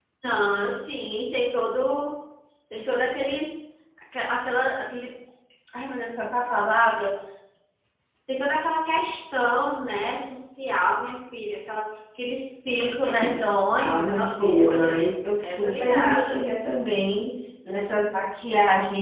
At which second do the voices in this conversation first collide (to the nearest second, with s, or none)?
14 s